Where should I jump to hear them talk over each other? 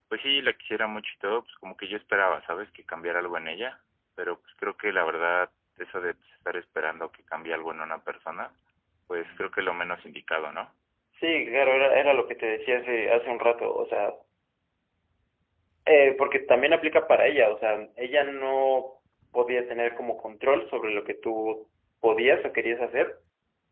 none

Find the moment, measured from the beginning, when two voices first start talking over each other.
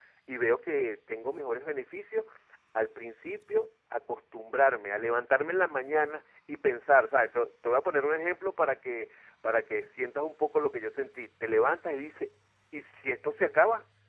none

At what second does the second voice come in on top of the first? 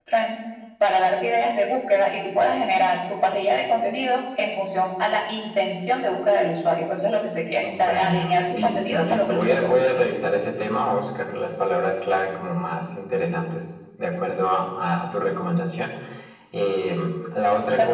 7.6 s

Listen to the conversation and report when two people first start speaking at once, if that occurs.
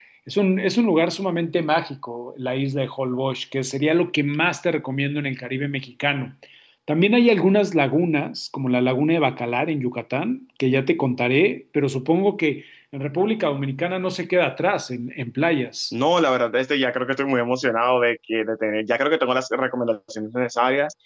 none

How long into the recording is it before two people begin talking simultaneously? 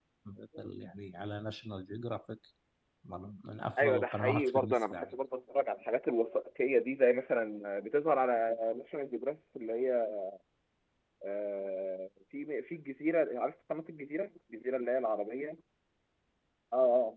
3.8 s

